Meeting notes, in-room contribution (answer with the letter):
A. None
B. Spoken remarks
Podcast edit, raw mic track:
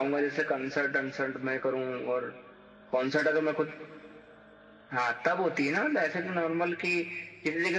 A